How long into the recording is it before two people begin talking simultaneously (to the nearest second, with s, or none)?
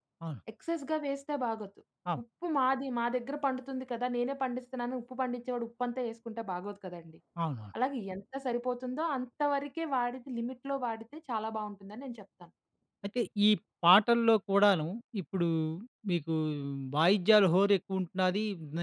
none